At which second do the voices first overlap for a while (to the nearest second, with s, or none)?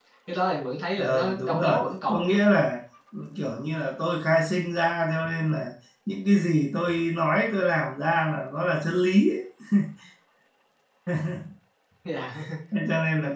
1 s